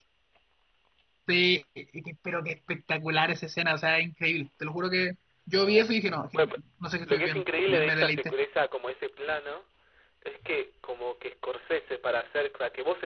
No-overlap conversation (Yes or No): No